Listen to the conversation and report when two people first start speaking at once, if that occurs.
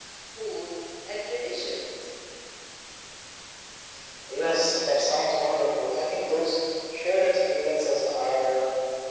none

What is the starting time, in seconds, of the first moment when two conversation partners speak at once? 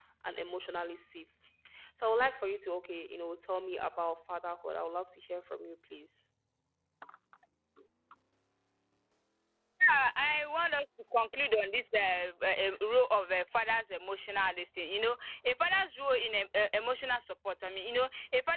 none

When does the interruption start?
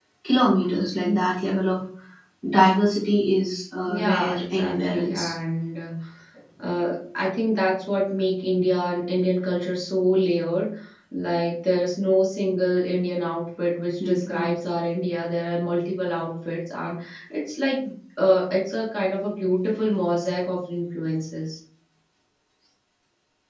4 s

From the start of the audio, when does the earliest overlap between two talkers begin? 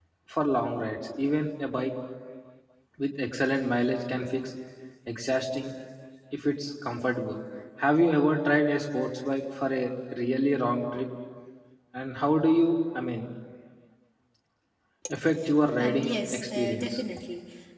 16 s

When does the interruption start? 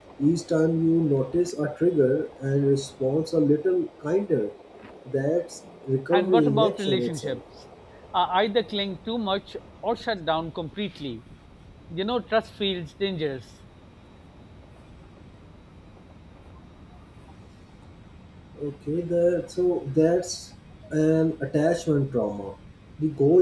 6 s

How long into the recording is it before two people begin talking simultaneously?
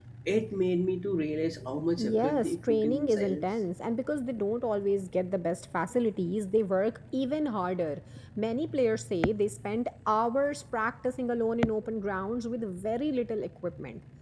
2 s

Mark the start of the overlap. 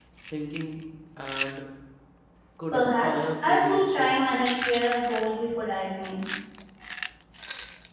3 s

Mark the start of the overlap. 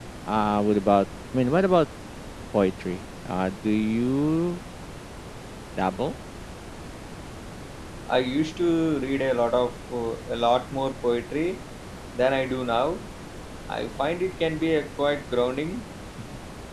none

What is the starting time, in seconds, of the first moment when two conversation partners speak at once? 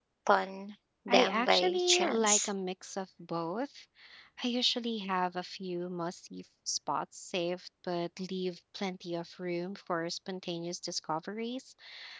1 s

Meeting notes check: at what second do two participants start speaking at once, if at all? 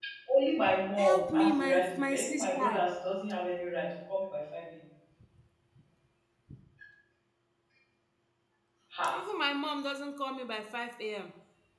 1 s

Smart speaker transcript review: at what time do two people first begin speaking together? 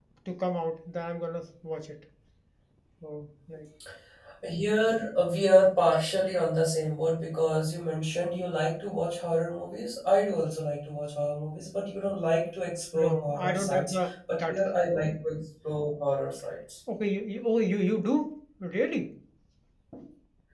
13 s

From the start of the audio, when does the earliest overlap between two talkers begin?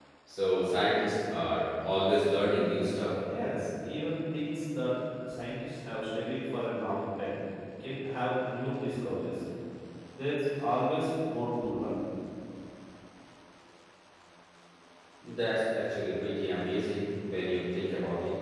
none

